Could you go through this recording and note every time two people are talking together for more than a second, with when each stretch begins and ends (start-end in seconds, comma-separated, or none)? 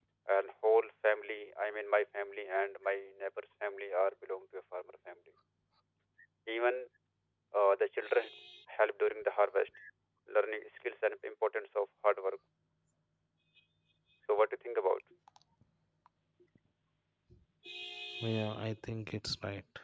none